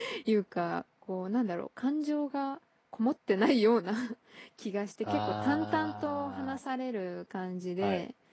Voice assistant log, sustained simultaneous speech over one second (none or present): present